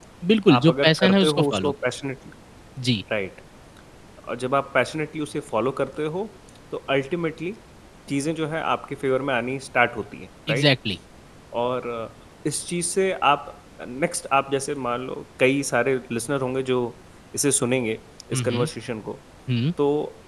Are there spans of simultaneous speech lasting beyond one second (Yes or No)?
Yes